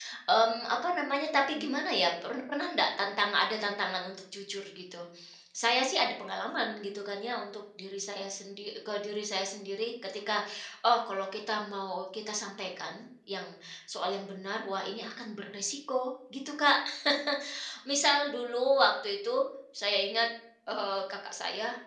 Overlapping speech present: No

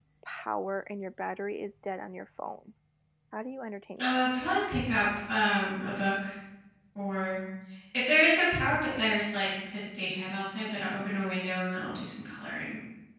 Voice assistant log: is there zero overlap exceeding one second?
Yes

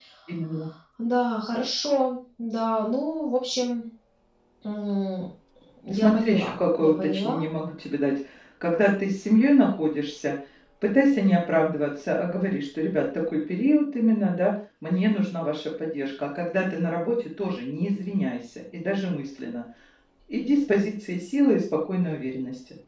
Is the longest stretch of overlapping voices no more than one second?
No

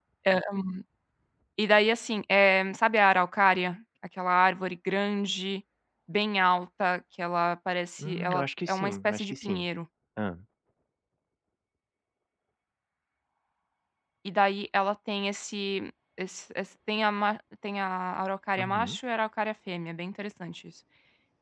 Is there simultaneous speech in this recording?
Yes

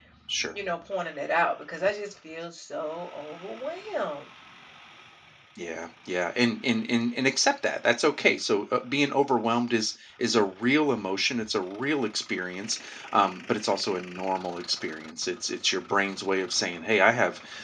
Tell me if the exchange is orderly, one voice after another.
Yes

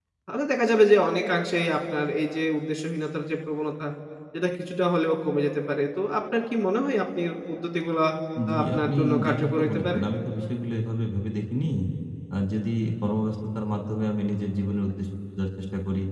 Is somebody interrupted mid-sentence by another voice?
Yes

